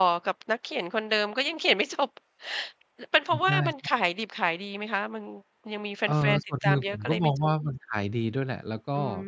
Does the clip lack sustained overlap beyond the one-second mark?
No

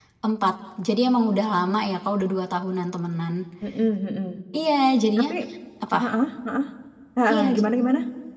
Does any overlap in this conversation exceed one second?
No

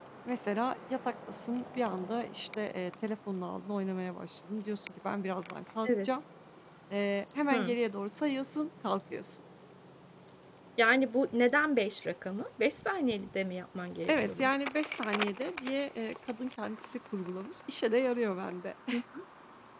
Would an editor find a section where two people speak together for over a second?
No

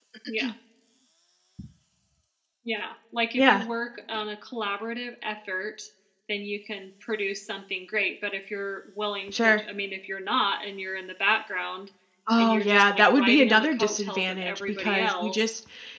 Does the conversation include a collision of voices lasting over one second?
Yes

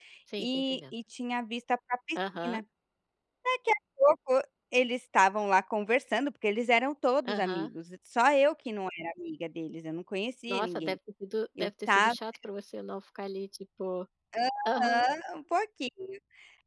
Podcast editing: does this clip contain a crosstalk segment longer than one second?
No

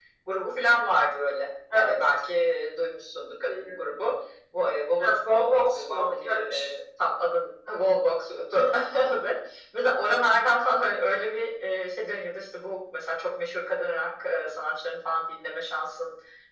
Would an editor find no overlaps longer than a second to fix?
No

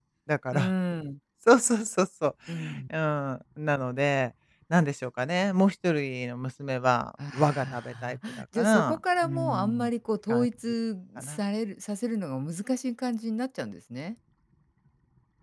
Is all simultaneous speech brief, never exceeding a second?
No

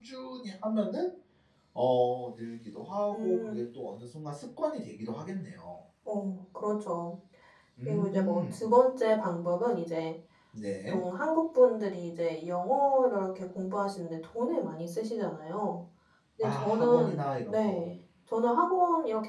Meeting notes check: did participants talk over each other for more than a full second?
Yes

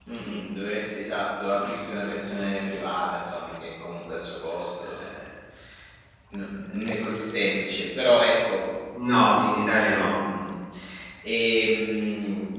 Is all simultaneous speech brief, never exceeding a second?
Yes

